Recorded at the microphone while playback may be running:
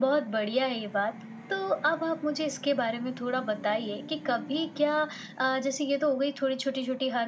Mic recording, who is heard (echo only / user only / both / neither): echo only